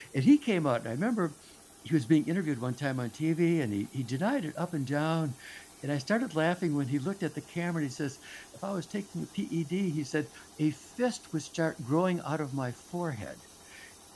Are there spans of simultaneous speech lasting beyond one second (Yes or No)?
No